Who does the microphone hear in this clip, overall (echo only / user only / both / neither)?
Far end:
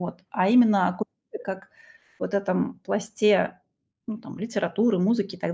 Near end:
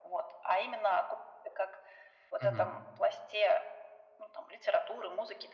both